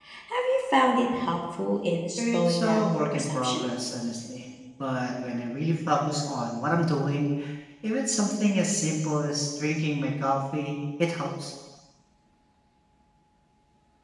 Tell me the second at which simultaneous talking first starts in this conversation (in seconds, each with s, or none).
2.2 s